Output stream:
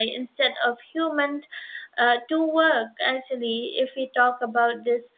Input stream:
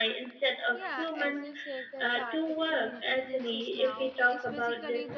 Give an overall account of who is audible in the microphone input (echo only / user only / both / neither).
both